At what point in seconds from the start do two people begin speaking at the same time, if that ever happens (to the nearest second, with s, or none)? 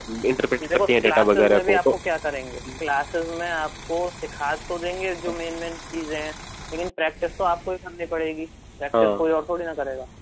1 s